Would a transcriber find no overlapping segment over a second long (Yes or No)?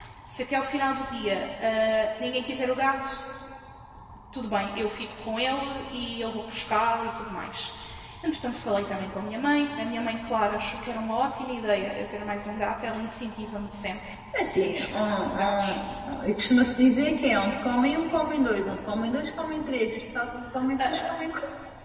No